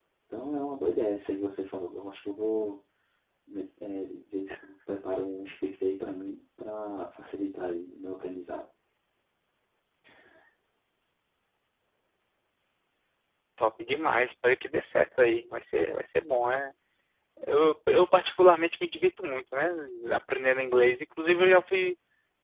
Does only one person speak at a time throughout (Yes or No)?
Yes